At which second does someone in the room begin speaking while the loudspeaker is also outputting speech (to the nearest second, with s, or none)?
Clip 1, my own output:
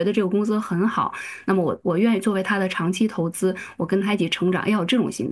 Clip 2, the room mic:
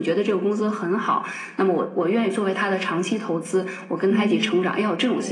4 s